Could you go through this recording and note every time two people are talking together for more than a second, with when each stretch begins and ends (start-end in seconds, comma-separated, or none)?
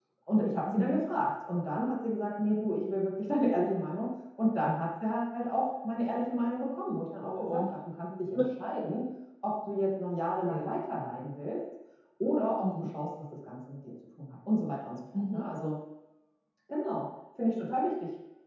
none